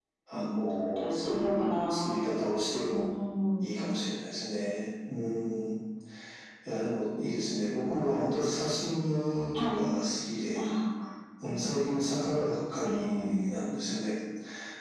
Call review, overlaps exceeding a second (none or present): present